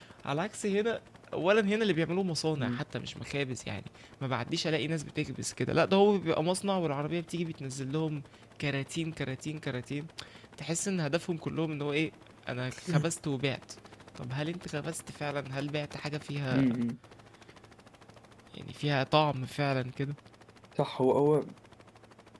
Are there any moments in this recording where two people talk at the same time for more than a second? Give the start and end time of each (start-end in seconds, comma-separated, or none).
none